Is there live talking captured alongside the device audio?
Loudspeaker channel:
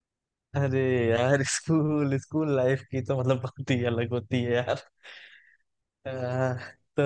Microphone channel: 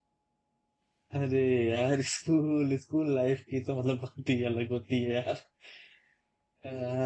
No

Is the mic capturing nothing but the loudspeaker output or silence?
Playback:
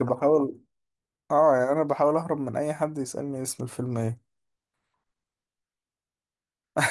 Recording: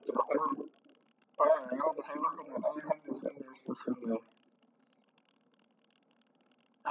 Yes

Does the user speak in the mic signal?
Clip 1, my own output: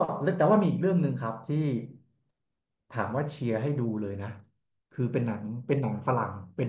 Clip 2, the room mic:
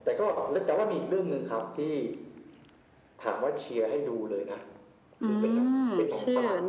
Yes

